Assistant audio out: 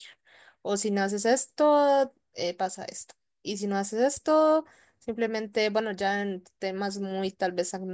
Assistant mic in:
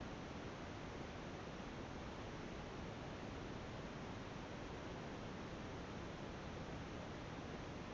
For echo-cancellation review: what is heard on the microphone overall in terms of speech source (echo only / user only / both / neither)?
neither